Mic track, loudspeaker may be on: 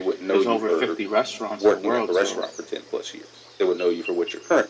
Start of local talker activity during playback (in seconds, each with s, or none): 0.3 s